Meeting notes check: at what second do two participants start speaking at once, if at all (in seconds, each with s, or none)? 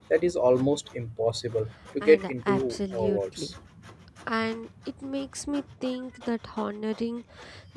2.0 s